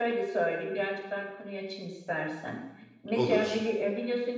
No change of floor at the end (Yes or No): Yes